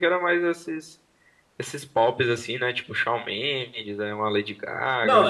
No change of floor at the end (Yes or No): No